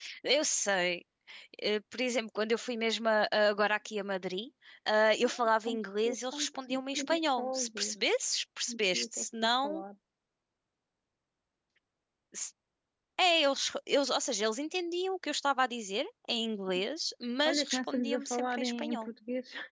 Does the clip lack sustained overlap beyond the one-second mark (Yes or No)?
No